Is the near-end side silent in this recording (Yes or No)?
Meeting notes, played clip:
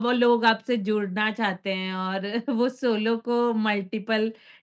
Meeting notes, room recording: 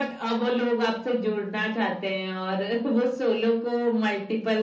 Yes